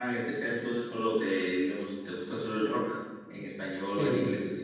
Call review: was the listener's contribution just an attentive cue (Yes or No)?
No